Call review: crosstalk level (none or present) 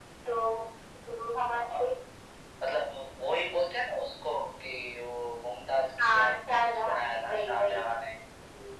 present